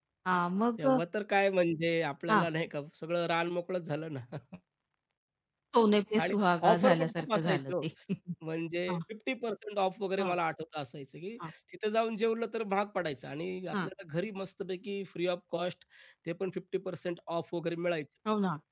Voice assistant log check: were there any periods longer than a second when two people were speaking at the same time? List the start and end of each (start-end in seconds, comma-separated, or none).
6.2-7.8